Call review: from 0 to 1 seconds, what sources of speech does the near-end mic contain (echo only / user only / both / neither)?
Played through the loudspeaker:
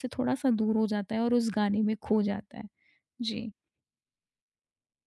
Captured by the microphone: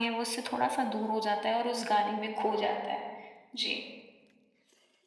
echo only